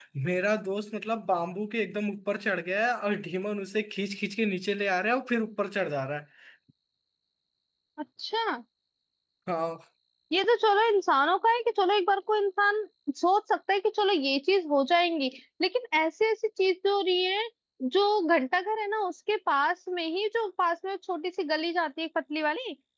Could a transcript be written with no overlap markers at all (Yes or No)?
Yes